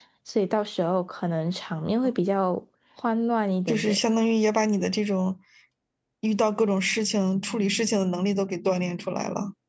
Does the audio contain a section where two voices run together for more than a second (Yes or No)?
No